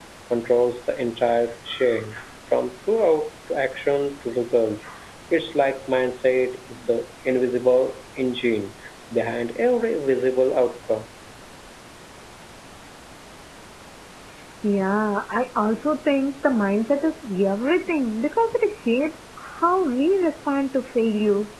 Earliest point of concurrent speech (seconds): none

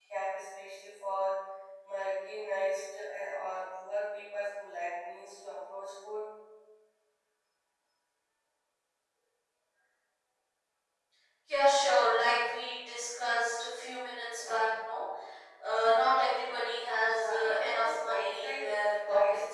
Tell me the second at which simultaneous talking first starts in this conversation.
17.0 s

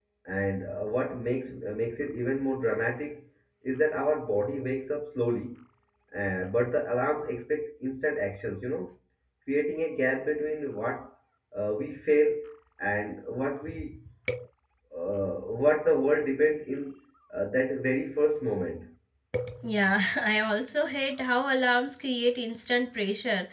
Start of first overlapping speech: none

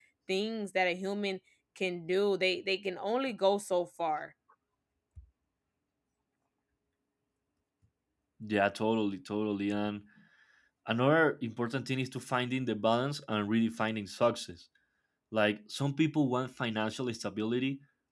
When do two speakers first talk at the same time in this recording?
none

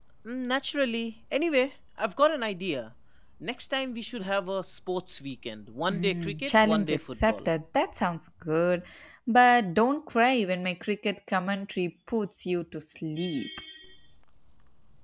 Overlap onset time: 5.9 s

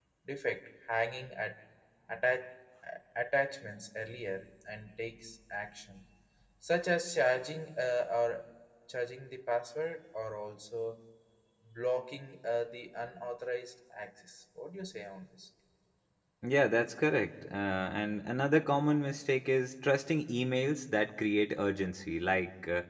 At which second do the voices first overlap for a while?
none

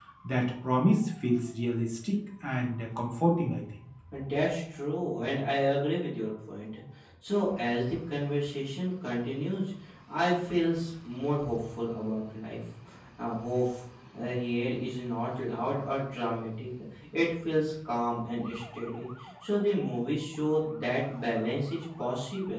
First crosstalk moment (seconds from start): none

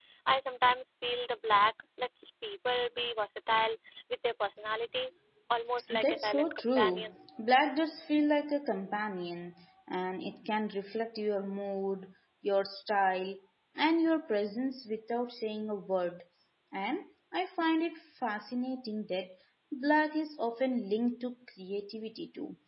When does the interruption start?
5.9 s

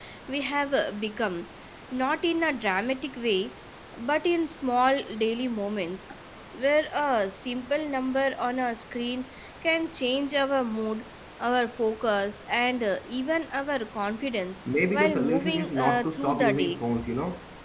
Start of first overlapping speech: 14.9 s

